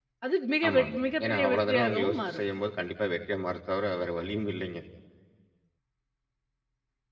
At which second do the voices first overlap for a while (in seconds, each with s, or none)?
0.7 s